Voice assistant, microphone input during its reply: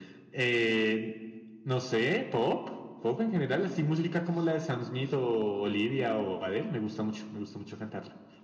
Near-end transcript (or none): none